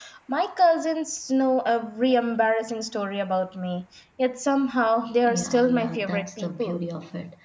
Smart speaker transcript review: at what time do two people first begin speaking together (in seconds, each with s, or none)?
5.2 s